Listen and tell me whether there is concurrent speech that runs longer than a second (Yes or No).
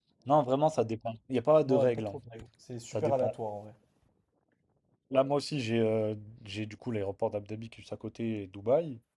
No